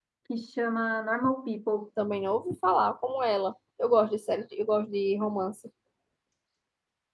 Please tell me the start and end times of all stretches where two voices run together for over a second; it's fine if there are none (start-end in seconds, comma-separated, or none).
none